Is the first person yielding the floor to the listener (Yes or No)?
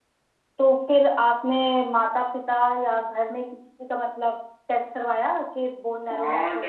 Yes